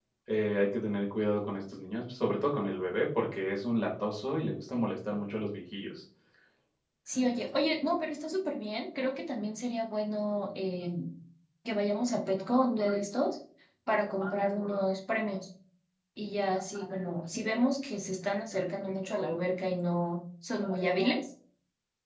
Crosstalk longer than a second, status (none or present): none